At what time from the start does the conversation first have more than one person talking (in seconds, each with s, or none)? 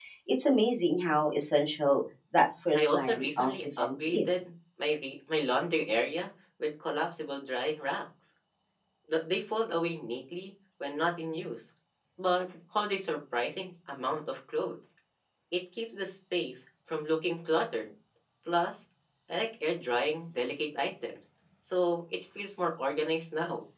2.7 s